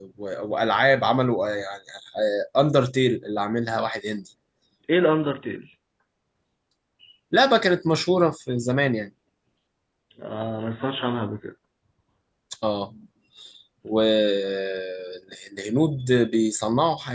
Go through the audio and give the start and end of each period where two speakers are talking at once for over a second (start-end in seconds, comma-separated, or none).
none